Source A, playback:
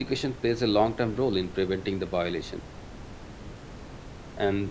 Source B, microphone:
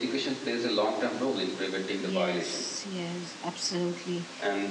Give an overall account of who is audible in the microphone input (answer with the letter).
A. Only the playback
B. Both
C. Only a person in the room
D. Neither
B